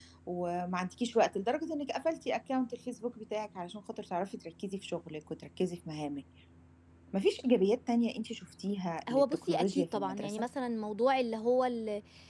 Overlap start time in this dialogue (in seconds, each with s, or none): 9.1 s